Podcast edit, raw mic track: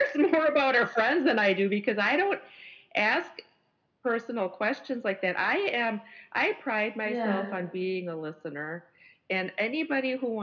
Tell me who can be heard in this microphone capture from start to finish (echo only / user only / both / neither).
both